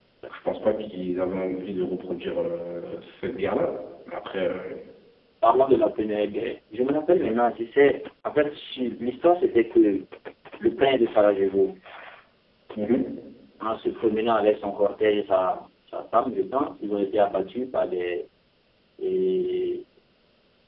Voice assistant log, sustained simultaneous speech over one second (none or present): none